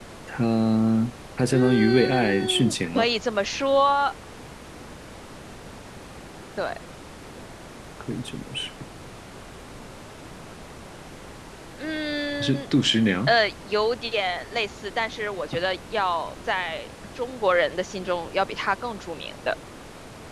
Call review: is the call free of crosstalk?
No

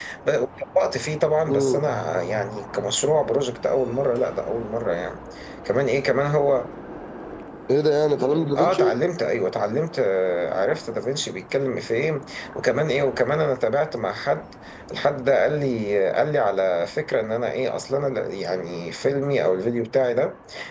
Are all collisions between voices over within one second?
Yes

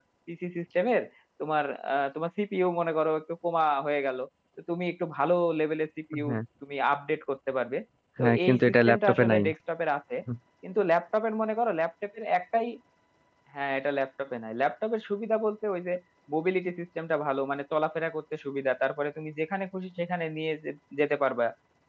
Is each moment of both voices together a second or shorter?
No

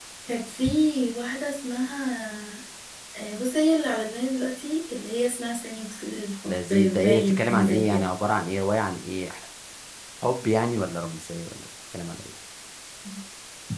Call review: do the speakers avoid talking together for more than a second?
No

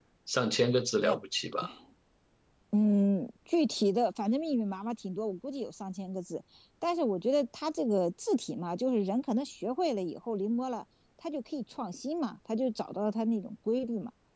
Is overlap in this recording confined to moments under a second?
Yes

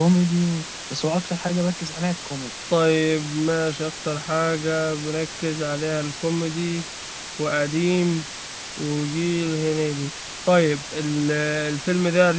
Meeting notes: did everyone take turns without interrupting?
Yes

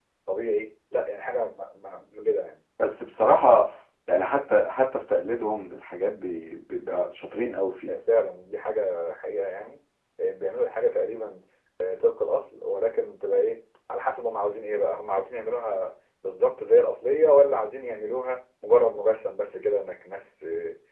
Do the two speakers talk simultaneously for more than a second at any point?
No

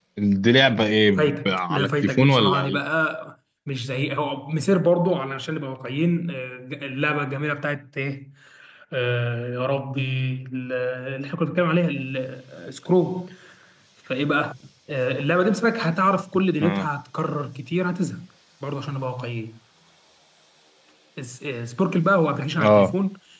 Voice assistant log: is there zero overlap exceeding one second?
No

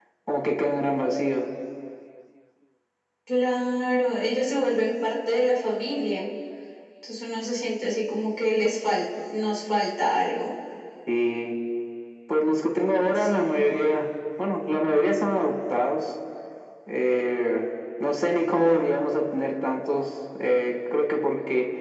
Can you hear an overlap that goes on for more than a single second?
No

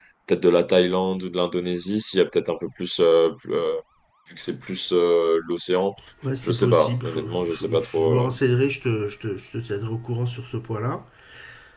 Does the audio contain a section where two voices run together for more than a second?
Yes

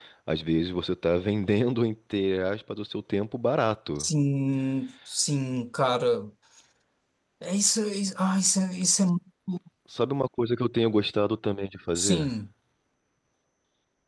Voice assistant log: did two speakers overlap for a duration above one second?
No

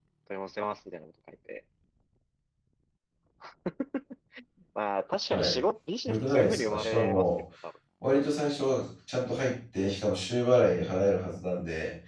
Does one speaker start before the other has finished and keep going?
Yes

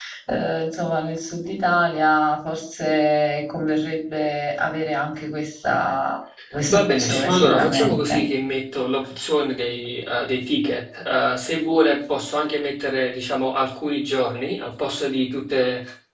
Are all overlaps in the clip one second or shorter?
No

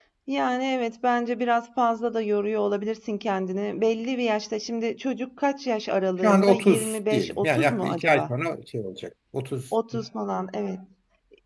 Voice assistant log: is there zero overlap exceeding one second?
No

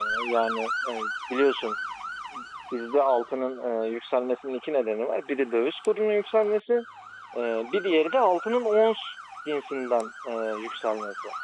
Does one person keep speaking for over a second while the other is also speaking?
No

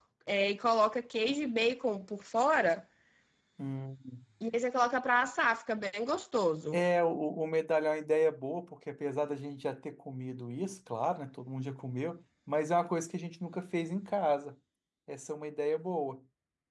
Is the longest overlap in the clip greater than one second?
No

